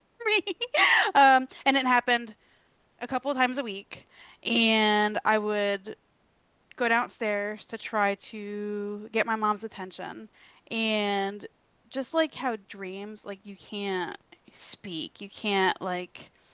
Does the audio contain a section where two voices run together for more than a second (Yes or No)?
No